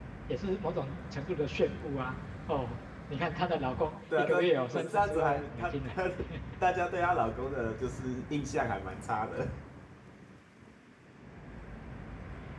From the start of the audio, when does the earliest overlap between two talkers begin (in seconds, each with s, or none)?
4.1 s